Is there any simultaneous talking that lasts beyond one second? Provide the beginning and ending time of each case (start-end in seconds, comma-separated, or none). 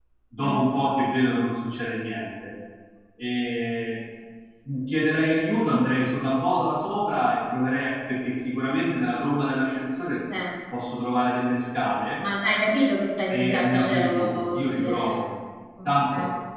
13.3-15.2